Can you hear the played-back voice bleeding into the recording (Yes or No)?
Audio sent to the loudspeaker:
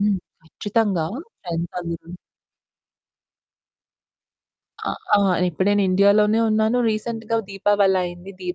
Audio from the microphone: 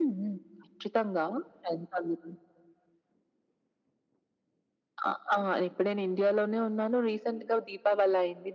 Yes